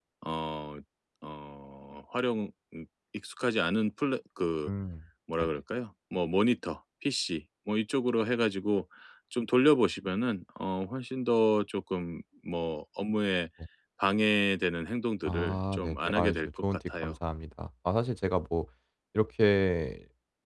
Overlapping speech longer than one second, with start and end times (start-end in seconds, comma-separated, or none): 15.3-17.2